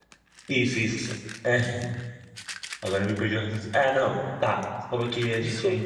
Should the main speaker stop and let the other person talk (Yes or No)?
No